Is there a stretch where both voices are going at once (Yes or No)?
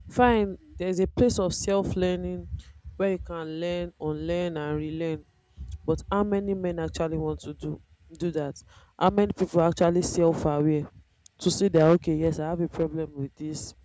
No